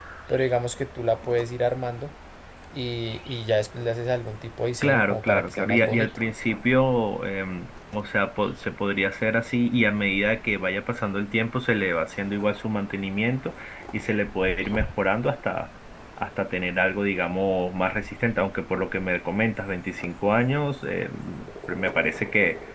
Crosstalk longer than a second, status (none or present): present